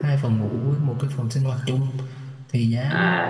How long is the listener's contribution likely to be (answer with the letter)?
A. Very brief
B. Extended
A